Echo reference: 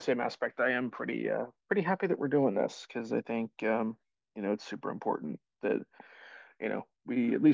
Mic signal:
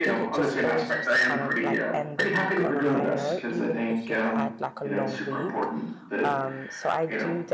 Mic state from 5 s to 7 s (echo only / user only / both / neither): both